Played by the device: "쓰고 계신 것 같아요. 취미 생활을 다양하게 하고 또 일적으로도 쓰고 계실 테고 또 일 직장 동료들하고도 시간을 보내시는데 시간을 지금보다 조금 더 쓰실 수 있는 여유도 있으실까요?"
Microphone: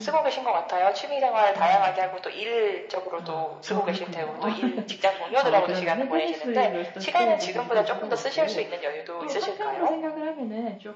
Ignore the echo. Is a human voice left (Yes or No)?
Yes